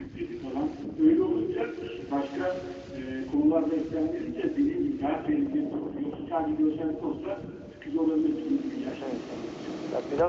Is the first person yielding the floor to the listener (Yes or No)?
Yes